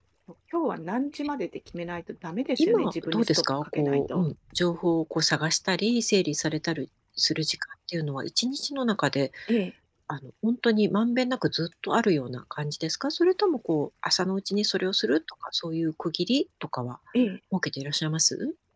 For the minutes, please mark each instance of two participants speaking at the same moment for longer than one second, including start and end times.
2.6-4.2

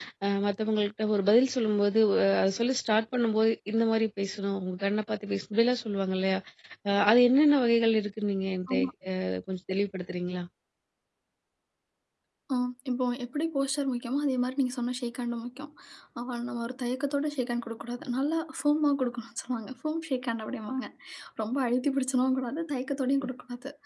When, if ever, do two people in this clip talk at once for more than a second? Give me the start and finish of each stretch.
none

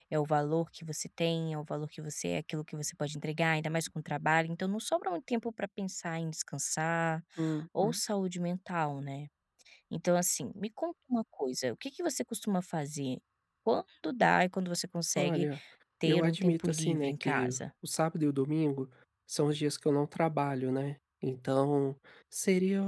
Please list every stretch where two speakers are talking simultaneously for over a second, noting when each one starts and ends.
16.1-17.6

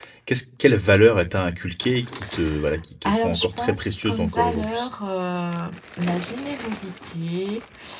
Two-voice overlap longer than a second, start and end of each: 3.0-4.9

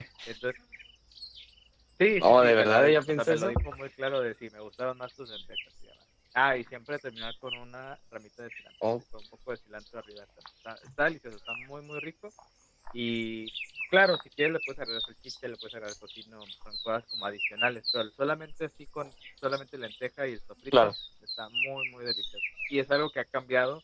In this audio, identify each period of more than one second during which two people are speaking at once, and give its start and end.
2.2-3.5

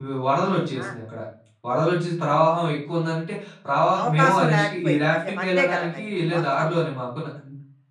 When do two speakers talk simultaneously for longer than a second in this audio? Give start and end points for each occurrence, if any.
4.0-6.7

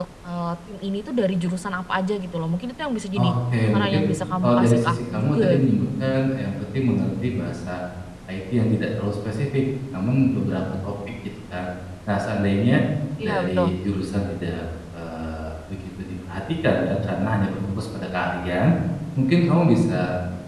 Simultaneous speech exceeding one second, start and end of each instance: 4.4-5.9

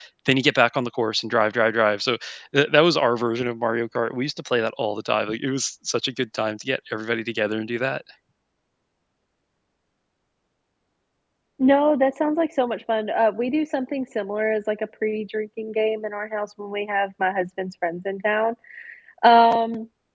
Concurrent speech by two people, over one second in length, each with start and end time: none

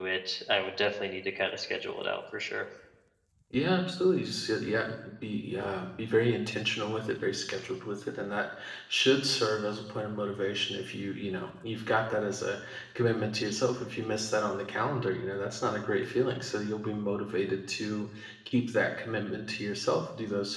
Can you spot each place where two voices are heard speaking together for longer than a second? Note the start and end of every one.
none

